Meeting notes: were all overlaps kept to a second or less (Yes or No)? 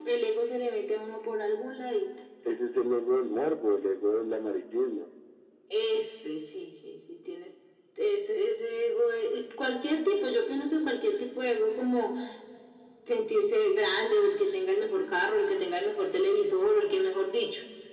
Yes